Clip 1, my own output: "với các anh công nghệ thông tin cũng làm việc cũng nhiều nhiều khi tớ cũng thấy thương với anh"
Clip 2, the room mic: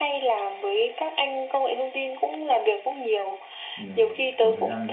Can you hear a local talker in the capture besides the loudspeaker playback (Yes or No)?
Yes